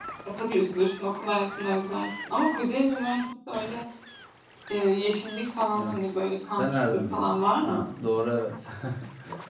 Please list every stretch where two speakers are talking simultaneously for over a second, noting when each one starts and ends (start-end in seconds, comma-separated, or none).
6.6-7.8